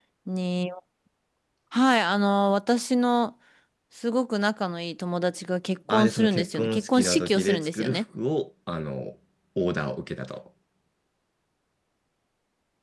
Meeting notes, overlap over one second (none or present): present